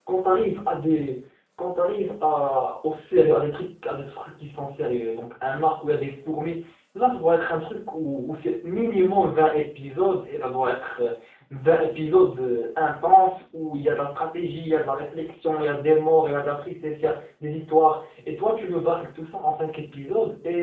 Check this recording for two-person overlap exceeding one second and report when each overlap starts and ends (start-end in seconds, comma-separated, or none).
none